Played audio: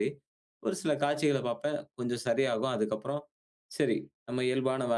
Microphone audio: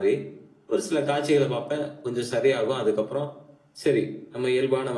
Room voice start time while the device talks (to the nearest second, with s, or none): none